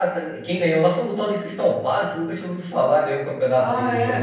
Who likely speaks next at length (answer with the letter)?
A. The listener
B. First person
A